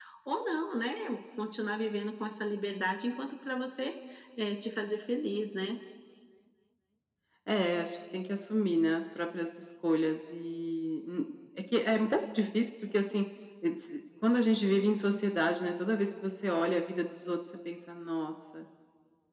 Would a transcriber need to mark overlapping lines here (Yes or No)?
No